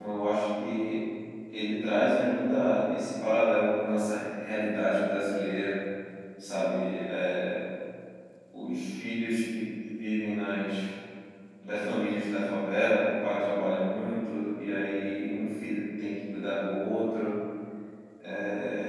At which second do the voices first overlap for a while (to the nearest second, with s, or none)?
none